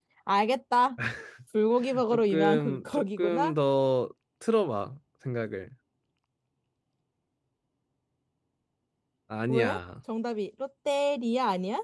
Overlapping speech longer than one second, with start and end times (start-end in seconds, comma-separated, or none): 2.1-3.5